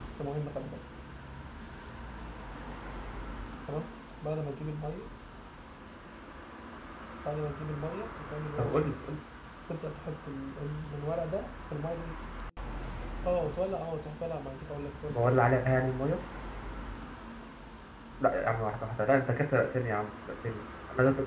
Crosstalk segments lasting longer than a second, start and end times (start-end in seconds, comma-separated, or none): none